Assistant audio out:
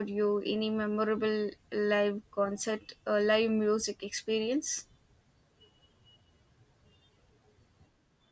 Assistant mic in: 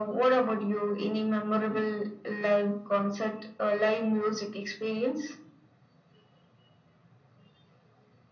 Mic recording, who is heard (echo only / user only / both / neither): echo only